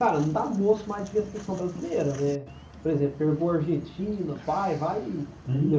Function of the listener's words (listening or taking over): listening